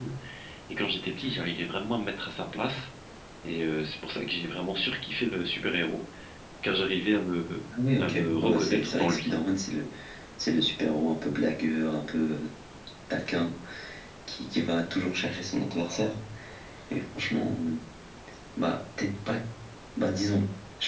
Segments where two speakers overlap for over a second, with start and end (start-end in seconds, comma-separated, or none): 8.0-9.3